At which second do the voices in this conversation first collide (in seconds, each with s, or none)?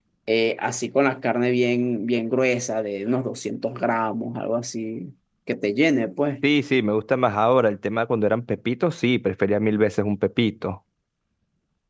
none